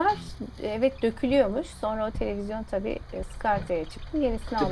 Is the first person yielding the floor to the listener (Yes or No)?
Yes